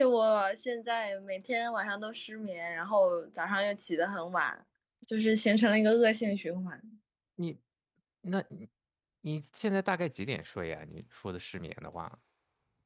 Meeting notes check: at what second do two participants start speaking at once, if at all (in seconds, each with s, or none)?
none